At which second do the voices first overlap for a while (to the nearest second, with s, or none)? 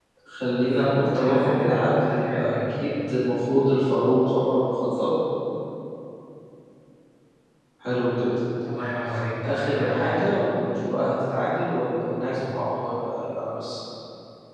1 s